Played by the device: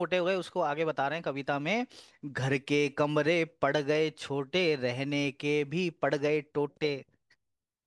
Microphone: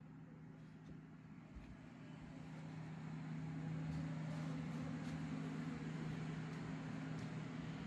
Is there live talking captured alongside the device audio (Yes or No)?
No